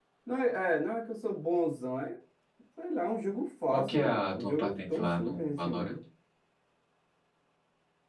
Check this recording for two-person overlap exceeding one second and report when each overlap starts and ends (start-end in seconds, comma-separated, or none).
3.7-5.9